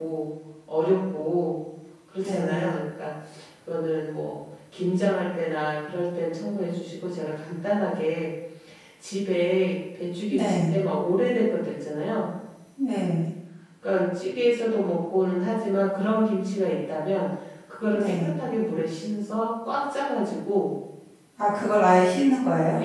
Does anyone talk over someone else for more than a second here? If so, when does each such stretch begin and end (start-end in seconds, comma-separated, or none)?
none